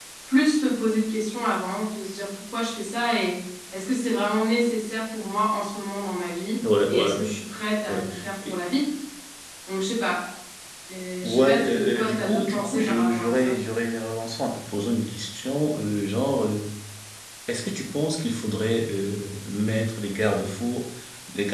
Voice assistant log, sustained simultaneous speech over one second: present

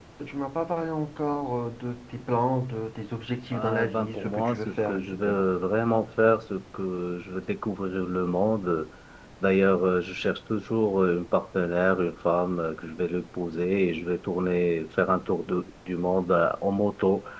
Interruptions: present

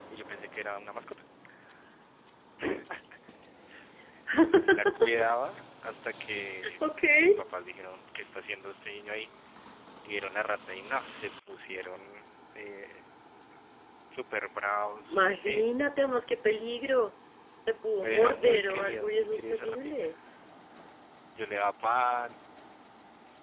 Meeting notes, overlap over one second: present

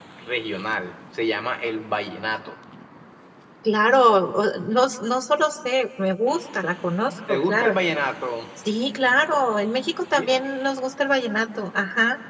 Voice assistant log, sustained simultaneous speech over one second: none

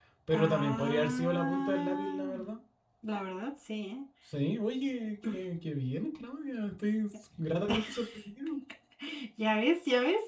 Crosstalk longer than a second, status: present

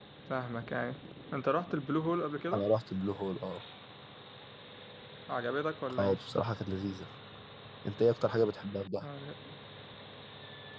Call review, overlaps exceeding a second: none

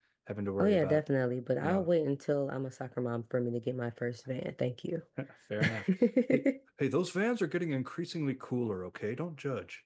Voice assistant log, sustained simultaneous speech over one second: none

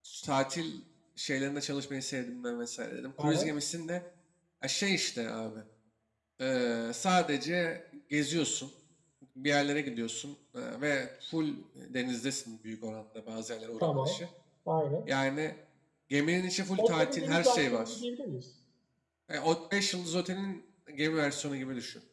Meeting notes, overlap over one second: present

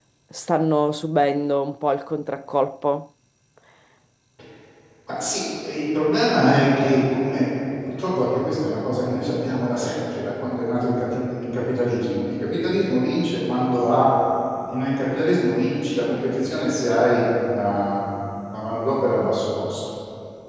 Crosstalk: none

